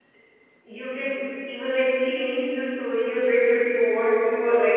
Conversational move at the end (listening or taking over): listening